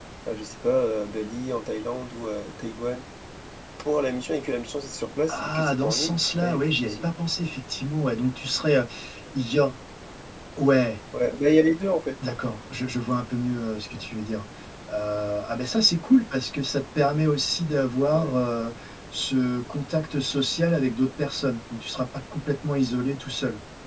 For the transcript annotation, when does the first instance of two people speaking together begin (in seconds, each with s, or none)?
5.3 s